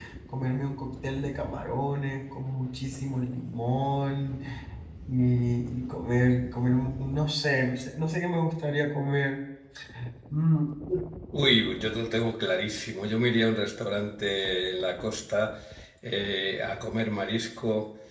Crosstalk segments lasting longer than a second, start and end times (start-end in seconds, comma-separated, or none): none